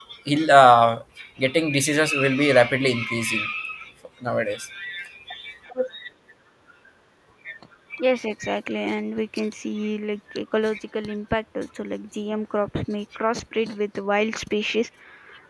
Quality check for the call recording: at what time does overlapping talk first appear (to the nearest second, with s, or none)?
none